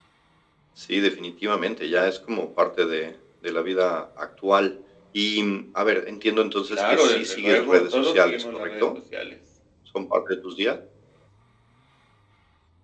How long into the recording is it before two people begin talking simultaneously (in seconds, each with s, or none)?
6.7 s